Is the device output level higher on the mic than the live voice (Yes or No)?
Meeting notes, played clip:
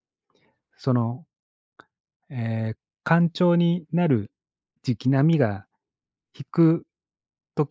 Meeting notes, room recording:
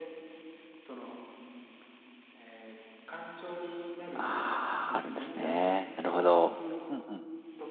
No